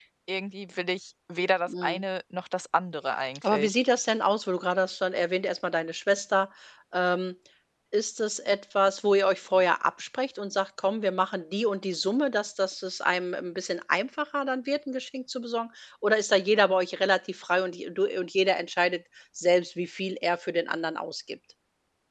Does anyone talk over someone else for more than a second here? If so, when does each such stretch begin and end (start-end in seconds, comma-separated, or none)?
none